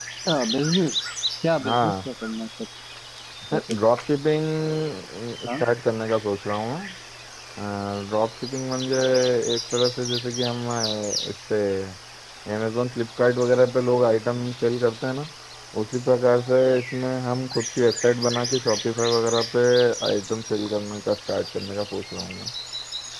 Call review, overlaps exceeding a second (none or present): none